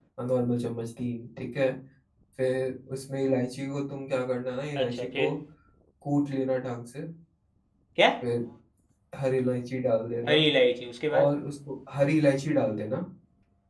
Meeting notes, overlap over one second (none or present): none